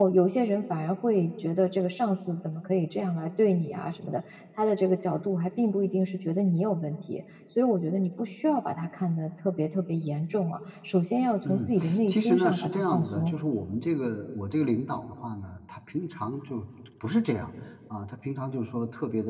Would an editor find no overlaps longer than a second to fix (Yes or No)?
No